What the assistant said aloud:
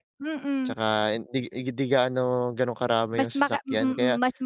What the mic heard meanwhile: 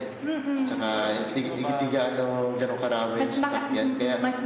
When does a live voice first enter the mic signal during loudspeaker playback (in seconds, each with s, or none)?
0.6 s